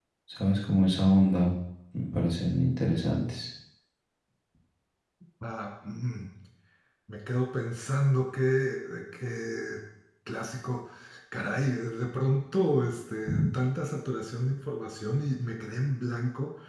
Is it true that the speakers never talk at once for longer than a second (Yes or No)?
Yes